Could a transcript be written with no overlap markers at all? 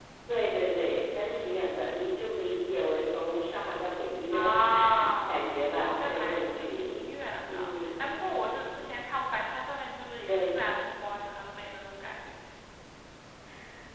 No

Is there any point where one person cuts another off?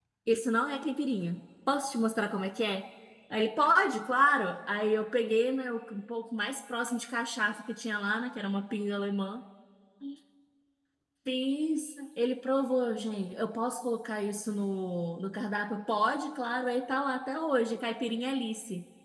No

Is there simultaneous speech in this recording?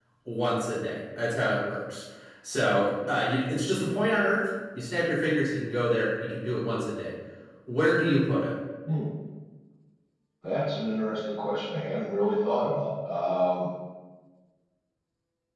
No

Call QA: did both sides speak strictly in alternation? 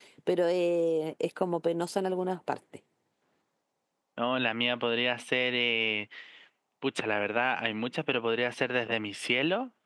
Yes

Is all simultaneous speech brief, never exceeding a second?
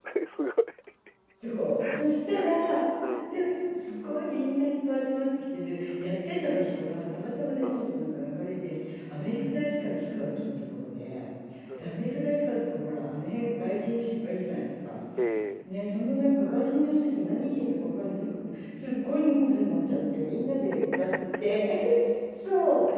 Yes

